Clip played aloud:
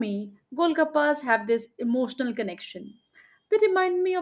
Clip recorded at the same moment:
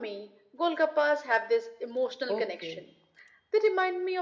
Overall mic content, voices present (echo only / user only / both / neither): both